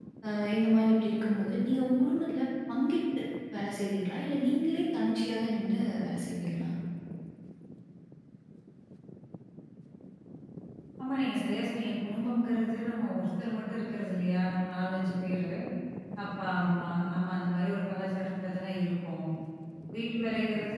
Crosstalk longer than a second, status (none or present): none